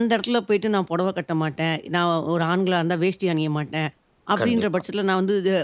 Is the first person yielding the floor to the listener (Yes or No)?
No